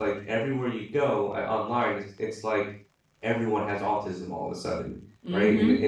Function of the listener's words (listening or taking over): listening